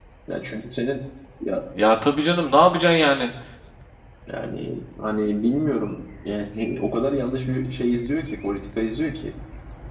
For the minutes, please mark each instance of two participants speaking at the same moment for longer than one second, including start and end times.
none

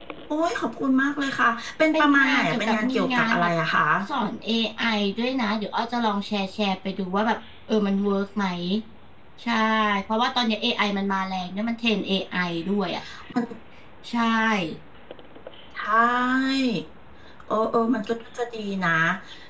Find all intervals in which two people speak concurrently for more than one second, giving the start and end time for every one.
1.9-3.5

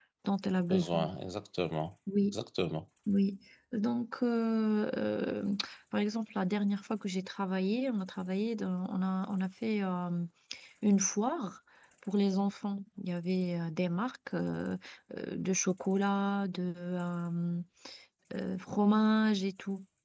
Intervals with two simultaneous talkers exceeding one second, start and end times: none

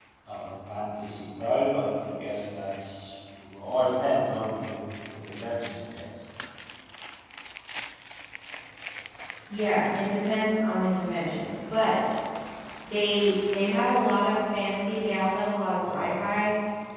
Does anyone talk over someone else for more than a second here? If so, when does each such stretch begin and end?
none

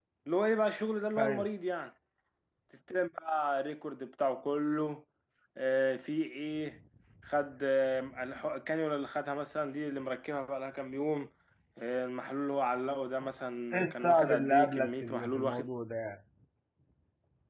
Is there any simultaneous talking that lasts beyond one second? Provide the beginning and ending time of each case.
13.7-15.7

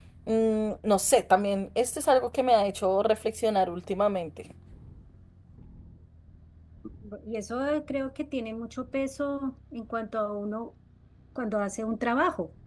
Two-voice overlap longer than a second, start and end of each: none

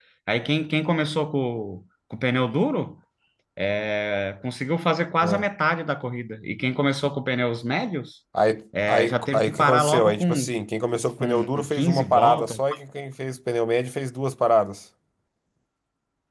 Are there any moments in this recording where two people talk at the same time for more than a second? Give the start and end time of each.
8.9-10.4, 11.2-12.6

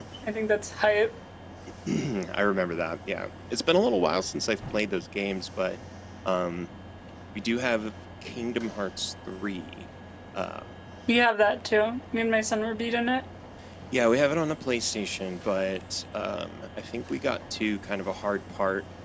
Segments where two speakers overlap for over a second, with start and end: none

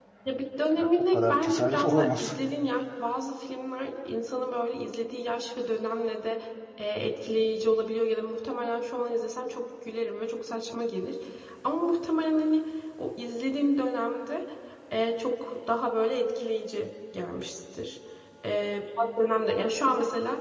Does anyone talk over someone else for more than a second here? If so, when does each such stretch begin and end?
0.8-2.4

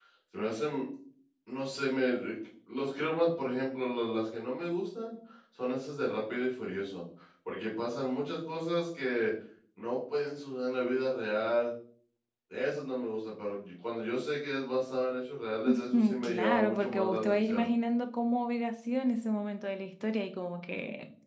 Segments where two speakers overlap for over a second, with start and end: 15.9-17.7

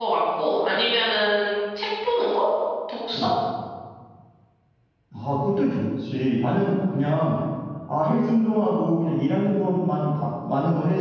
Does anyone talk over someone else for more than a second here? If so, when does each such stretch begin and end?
none

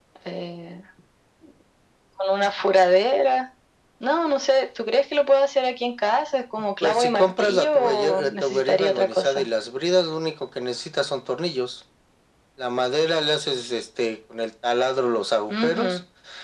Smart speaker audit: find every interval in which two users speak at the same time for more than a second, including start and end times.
6.8-9.5

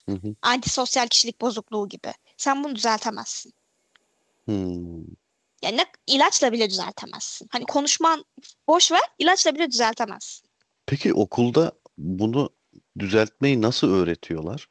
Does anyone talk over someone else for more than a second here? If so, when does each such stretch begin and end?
none

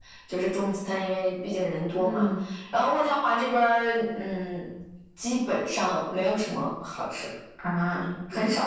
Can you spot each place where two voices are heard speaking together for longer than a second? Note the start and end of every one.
none

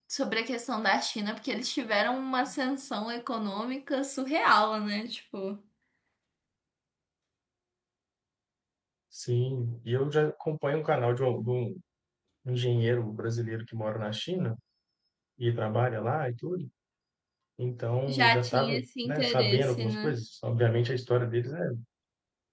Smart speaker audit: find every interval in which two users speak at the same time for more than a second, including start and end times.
18.1-20.1

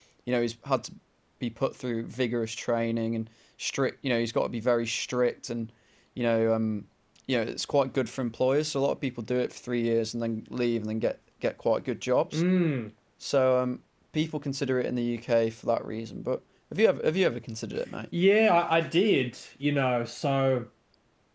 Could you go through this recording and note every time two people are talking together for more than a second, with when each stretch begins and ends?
none

